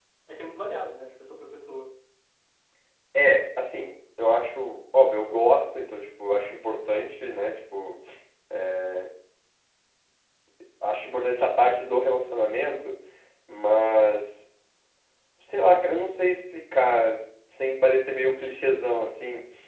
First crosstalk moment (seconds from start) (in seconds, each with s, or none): none